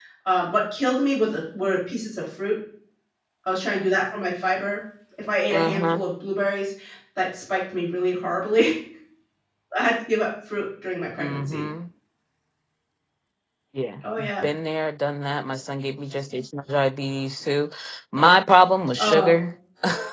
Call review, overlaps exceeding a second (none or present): none